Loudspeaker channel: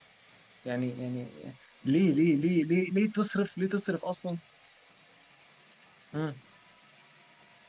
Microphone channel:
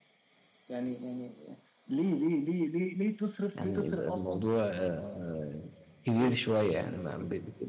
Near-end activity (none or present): present